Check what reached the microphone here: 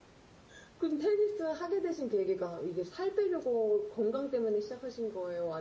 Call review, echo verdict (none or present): none